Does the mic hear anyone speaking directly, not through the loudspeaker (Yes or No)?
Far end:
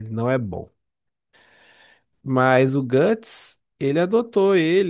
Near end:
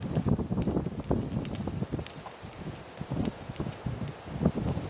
No